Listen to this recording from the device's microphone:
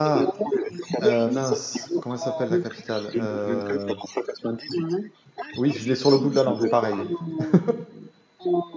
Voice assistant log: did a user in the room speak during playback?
Yes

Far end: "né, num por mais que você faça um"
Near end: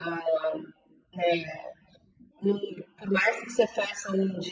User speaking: No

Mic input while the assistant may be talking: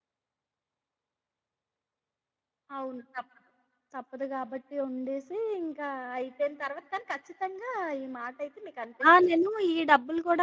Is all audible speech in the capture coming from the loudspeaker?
No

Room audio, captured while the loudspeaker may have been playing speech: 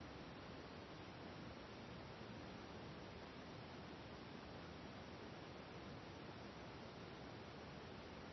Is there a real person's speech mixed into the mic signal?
No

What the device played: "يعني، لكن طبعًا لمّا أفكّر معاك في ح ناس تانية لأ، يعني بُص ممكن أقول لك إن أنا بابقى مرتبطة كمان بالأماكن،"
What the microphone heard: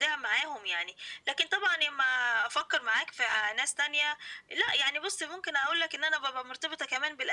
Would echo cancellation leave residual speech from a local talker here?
No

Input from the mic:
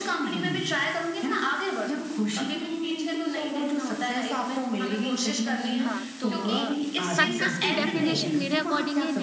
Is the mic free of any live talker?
No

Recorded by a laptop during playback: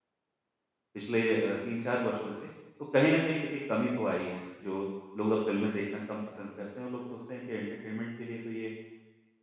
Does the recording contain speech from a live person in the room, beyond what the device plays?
Yes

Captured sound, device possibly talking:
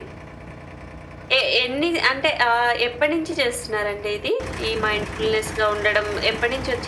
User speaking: No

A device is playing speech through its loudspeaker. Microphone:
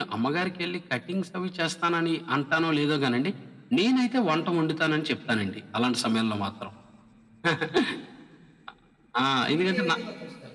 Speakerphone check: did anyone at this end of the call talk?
Yes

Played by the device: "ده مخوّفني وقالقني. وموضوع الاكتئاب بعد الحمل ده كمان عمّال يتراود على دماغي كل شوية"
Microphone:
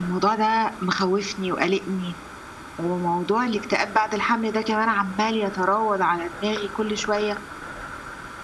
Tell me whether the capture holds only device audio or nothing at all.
Yes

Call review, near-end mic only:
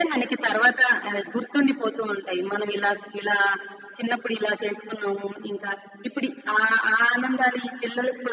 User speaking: No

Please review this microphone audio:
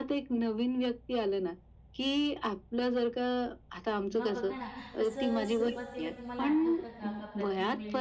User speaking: Yes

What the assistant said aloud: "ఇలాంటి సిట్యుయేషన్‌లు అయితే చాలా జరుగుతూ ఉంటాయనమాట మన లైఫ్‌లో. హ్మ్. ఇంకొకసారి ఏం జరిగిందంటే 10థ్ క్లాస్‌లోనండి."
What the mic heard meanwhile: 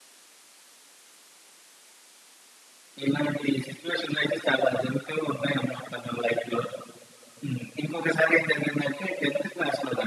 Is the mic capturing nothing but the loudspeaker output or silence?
Yes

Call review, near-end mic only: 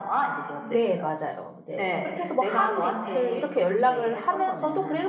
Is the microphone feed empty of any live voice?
No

